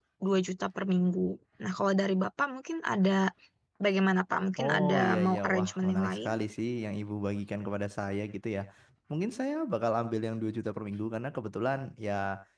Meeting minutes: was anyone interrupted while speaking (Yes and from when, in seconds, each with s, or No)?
Yes, from 4.6 s